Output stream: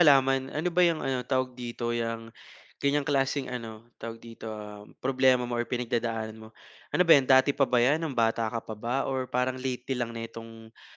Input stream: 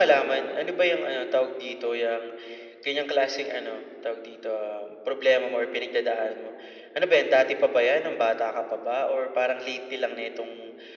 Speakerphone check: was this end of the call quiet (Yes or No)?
Yes